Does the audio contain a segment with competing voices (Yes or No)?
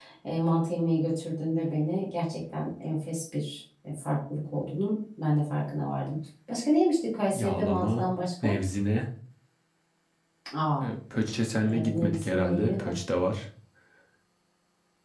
Yes